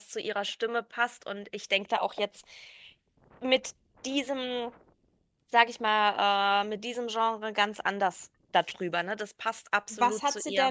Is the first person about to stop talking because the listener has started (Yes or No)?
Yes